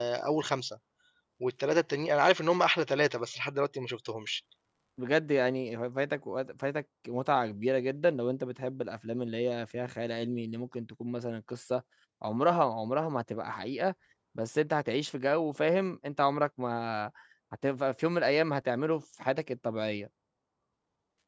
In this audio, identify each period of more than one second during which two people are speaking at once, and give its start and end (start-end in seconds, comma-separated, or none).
none